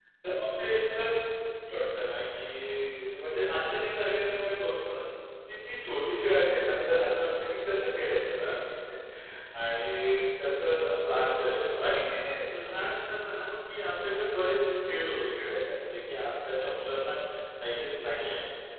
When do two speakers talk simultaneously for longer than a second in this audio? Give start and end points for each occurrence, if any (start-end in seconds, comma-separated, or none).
none